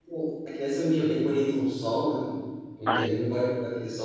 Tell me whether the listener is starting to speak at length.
No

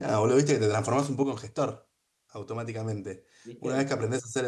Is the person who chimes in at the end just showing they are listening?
Yes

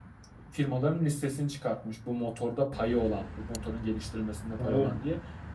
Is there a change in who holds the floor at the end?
No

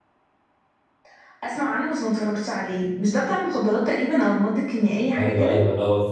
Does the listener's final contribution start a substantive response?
Yes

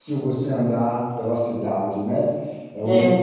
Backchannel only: Yes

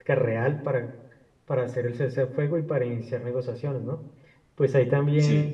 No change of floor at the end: Yes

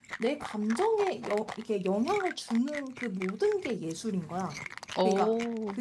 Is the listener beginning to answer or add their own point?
No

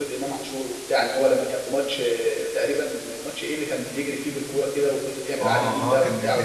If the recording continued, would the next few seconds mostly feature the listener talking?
Yes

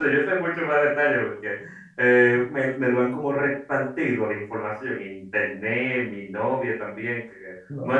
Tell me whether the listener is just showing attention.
Yes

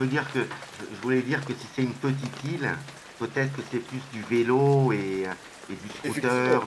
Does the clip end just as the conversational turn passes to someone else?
Yes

